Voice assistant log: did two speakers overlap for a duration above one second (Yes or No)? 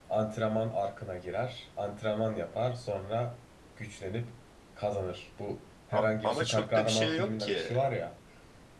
Yes